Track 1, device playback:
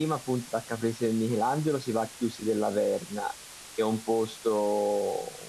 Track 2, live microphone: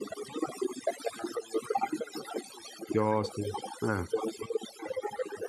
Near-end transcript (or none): chiostri. Eh.